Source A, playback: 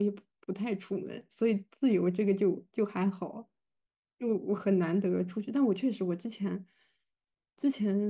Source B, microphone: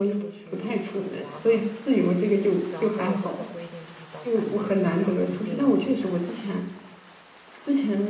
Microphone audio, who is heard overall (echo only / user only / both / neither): both